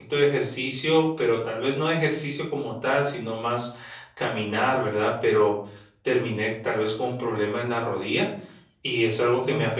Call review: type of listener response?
listening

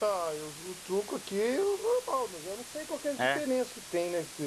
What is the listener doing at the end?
listening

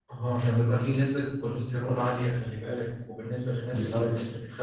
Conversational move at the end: listening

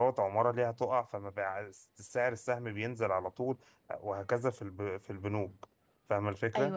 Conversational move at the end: taking over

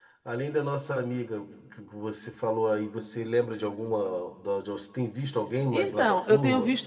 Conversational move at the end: taking over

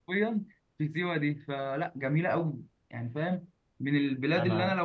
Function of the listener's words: listening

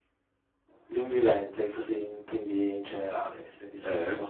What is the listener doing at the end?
taking over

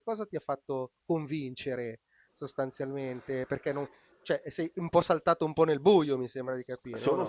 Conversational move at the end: taking over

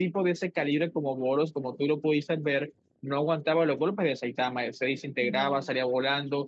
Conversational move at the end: listening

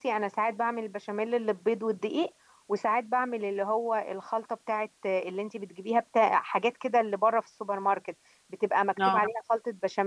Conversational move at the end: listening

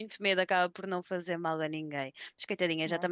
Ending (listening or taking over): listening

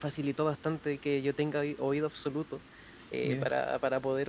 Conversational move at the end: listening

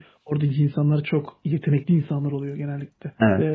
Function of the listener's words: taking over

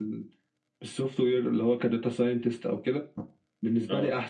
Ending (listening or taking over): listening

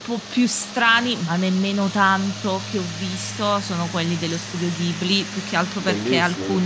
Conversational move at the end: listening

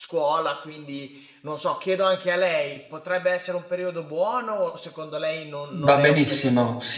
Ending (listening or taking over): taking over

